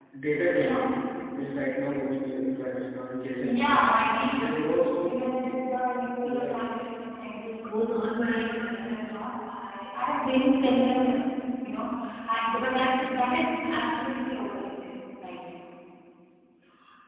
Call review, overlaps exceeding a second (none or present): none